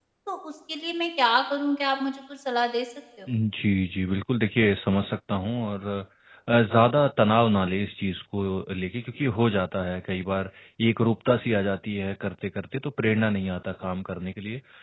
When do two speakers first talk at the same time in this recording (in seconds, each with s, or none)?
none